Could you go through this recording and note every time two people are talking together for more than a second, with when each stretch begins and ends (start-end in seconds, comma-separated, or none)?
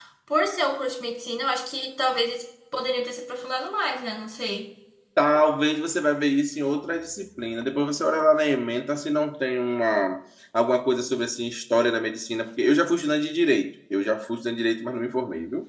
none